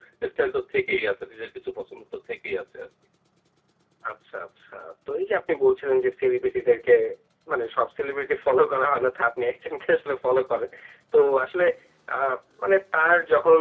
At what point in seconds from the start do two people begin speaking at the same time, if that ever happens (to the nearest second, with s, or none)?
none